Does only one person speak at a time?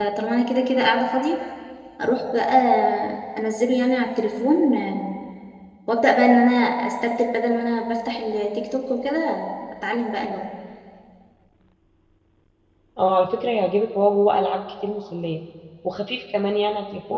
Yes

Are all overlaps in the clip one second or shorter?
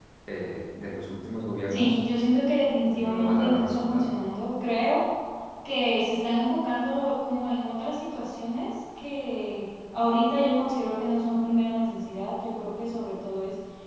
No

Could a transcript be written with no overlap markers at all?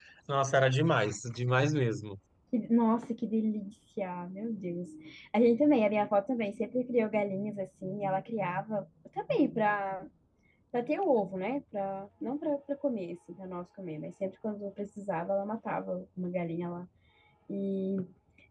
Yes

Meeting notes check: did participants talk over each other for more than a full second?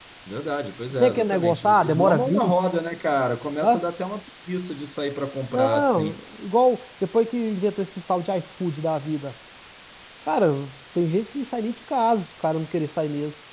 Yes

